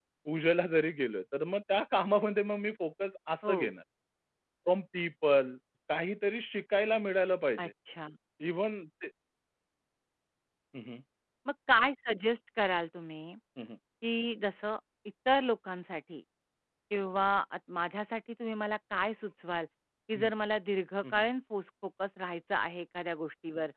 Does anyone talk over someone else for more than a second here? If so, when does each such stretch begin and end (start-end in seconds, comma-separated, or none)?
none